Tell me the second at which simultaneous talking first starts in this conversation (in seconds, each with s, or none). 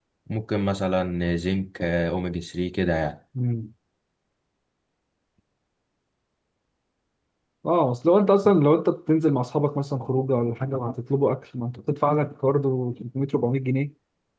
none